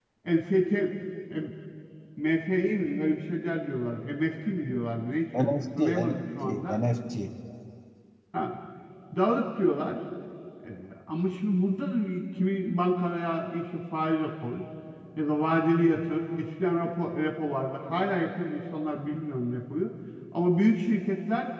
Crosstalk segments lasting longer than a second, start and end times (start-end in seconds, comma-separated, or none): 5.4-6.8